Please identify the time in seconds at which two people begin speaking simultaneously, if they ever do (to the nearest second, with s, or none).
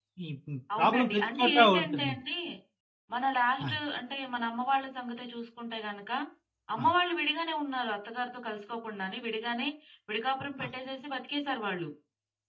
1 s